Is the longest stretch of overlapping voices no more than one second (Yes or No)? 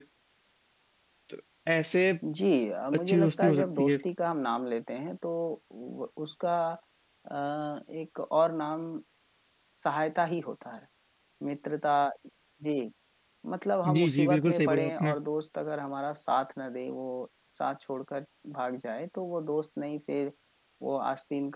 No